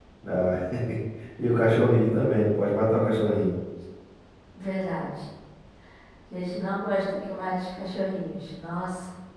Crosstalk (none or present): none